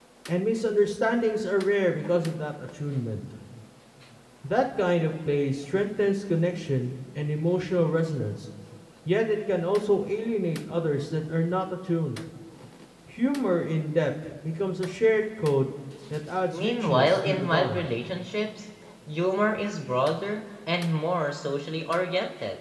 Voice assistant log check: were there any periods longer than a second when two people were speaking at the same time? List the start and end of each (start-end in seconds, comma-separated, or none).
16.5-17.9